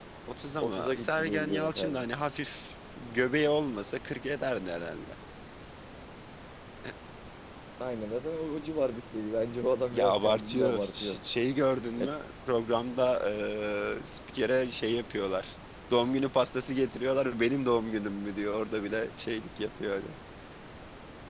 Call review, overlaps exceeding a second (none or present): present